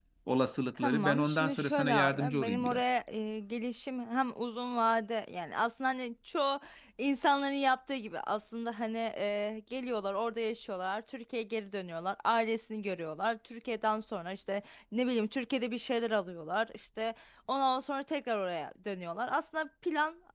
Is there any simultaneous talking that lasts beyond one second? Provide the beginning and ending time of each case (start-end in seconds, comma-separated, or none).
0.8-2.8